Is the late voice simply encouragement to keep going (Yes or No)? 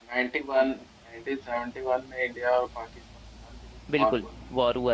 No